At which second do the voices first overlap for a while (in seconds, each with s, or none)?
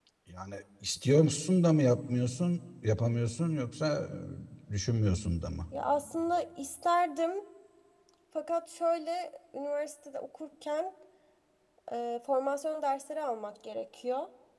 none